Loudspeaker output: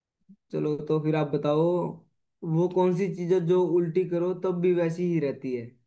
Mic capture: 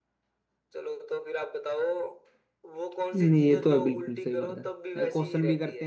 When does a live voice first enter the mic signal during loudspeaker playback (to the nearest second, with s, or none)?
3 s